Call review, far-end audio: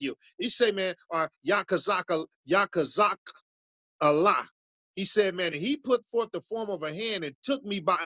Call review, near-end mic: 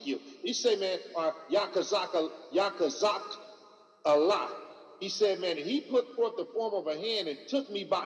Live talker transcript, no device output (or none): none